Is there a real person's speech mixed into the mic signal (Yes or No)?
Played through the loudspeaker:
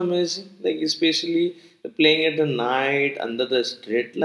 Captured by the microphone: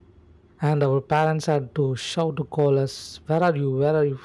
Yes